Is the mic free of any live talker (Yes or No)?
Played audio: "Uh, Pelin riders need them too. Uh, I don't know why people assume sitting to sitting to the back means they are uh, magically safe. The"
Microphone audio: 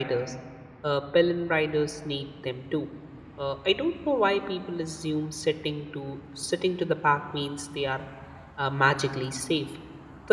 Yes